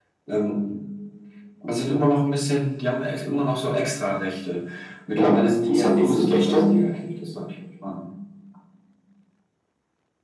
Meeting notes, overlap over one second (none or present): present